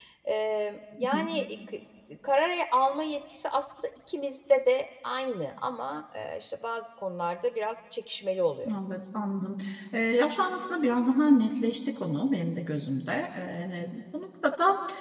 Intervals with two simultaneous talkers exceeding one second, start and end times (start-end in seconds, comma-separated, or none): none